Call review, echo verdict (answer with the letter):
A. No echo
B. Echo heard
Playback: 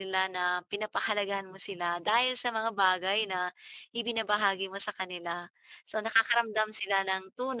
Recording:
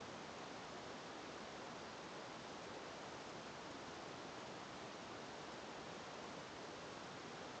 A